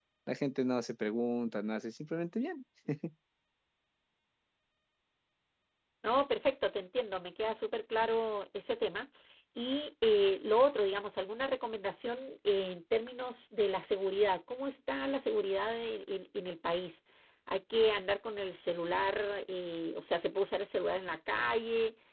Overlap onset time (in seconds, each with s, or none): none